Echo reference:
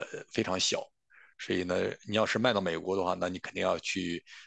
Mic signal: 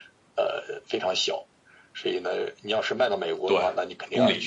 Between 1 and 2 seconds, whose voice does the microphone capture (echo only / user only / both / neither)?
echo only